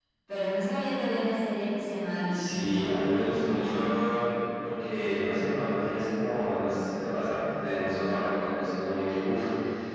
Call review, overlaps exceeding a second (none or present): present